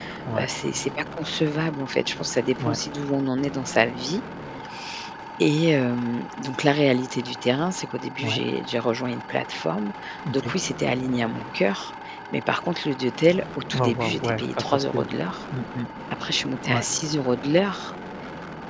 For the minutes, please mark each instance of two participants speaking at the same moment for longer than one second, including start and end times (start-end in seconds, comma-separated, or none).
13.8-15.1